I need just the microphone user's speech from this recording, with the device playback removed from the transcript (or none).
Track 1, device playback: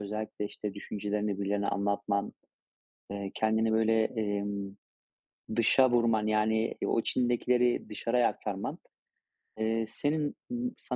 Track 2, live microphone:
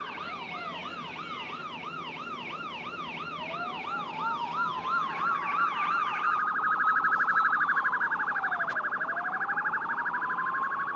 none